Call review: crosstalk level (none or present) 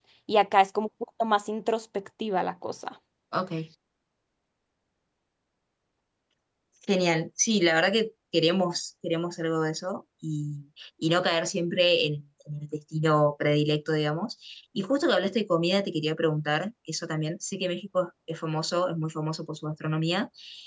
none